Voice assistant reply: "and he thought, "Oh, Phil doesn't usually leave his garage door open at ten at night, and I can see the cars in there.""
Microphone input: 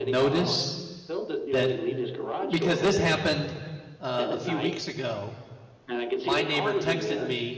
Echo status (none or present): present